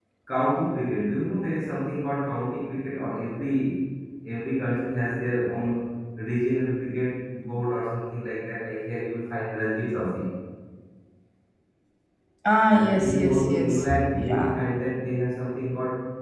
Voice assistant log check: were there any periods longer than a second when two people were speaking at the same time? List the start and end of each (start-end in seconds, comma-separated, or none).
12.7-14.5